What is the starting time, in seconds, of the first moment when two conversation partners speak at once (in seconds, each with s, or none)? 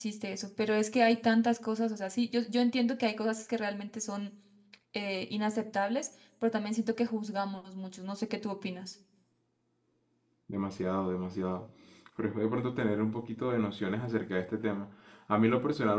none